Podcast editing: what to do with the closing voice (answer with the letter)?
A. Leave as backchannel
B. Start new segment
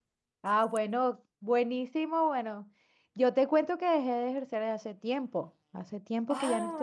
A